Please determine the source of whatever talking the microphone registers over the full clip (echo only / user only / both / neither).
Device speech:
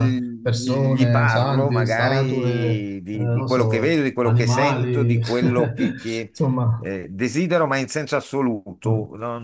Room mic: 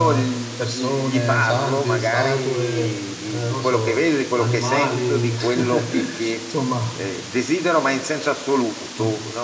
echo only